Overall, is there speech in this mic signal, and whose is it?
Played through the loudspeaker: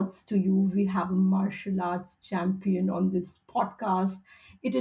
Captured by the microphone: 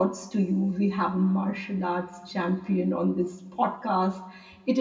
echo only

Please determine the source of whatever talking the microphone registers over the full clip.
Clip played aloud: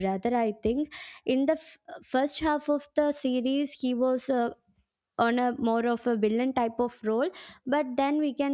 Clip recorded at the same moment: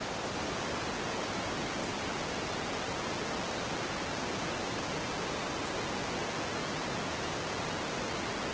neither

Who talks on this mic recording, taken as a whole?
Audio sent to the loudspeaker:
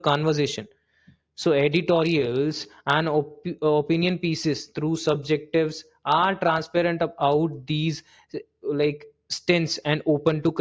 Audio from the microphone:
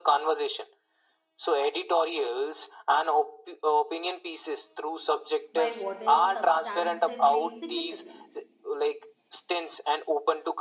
both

